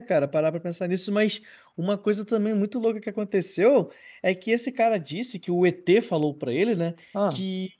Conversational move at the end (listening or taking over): listening